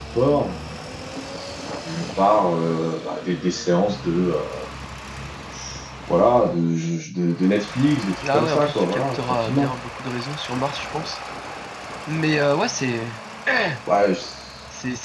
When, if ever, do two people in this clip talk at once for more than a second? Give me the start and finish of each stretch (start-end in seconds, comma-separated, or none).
8.3-9.7